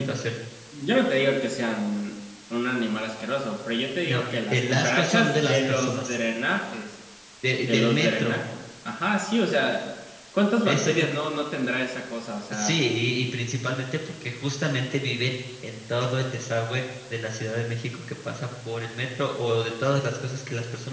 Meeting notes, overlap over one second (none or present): present